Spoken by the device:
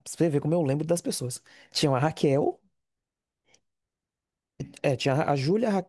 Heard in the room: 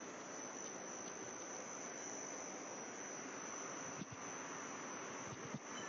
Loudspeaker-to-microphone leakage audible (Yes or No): No